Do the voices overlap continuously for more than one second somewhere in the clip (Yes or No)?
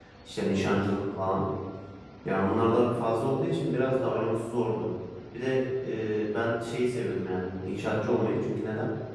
No